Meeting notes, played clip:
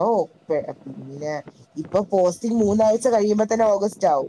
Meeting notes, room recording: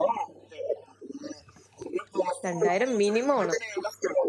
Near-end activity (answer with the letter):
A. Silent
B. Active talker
B